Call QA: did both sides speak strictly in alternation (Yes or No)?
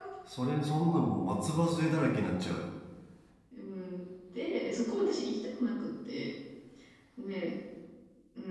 Yes